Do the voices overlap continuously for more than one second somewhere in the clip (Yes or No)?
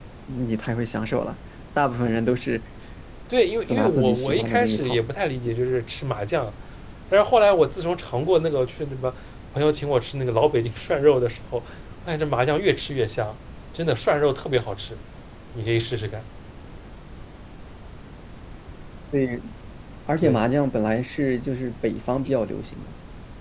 Yes